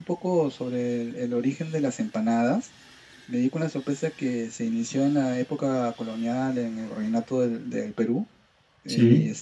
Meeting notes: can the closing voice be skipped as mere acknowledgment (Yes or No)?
Yes